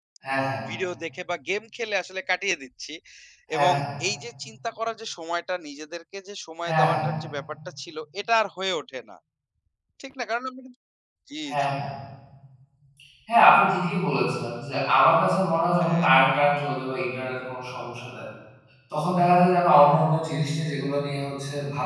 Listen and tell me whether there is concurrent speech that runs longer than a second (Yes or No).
No